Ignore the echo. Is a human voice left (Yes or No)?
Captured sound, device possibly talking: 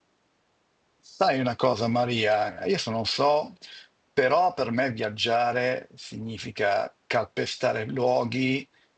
Yes